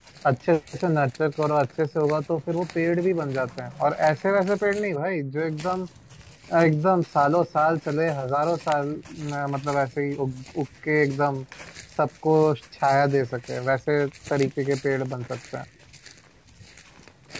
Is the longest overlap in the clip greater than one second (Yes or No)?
No